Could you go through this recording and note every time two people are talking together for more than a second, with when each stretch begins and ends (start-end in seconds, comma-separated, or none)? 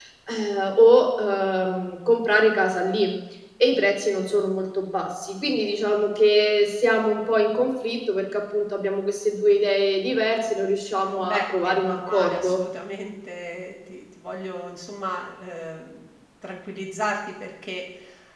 11.2-12.6